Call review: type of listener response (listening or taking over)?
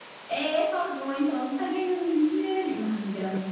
listening